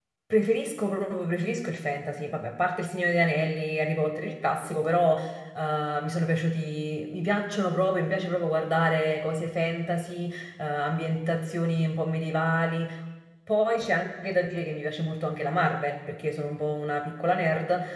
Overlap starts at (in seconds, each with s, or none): none